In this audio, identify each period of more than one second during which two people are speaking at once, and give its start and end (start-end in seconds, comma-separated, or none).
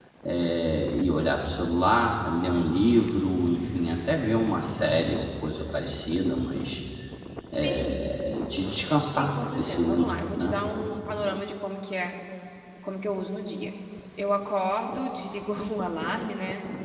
9.1-10.6